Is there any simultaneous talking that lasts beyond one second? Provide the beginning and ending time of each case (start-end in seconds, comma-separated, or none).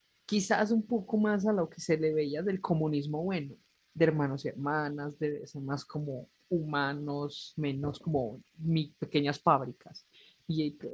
none